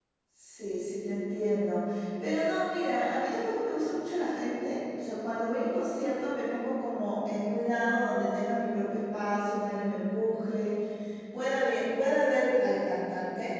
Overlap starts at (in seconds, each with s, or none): none